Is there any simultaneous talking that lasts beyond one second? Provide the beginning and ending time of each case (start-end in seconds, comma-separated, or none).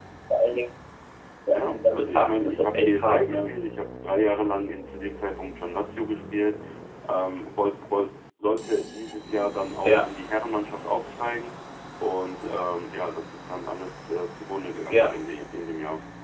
1.5-3.5